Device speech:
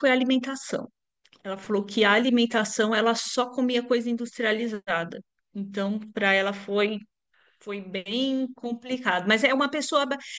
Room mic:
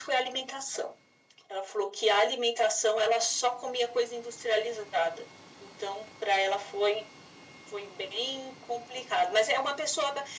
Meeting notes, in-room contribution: none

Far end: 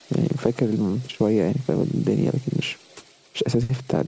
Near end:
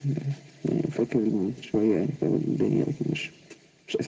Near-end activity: none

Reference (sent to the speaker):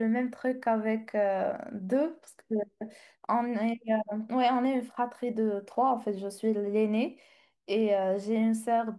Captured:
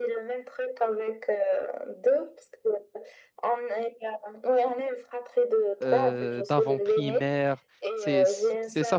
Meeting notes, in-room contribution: present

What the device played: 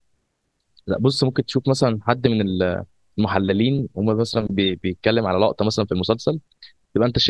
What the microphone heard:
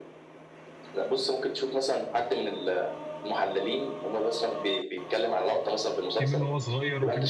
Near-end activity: present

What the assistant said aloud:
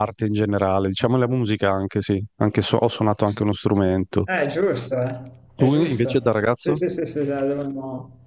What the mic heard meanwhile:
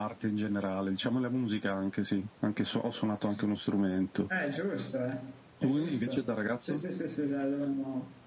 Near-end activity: none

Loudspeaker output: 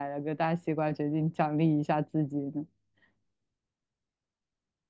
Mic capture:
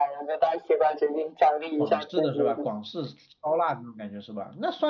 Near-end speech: present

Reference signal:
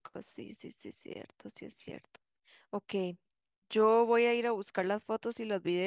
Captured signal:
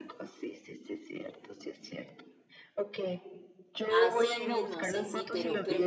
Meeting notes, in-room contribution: present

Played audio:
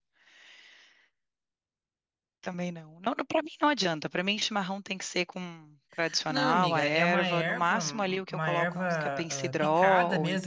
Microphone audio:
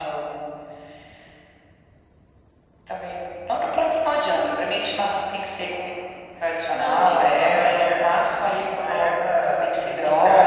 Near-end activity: none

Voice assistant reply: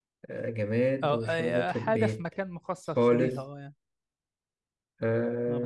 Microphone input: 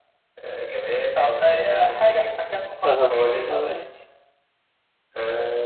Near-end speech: present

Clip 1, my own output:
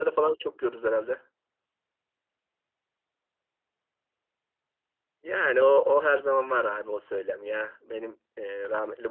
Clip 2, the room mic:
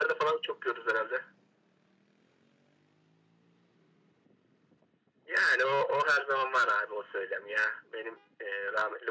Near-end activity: none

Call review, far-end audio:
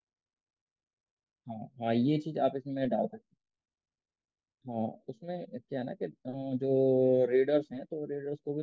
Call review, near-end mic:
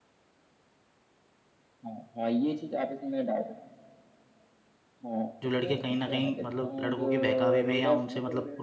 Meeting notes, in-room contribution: present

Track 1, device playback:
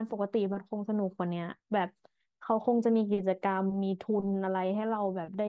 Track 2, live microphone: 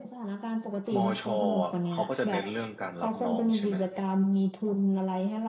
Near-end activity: present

